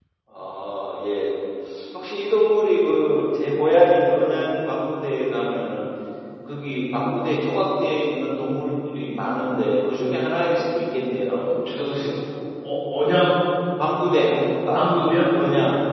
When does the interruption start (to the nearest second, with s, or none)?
none